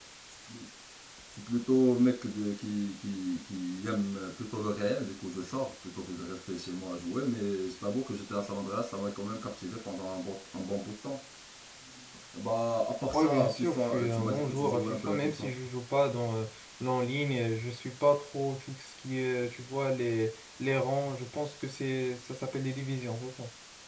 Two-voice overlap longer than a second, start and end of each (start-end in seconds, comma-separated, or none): 13.1-15.5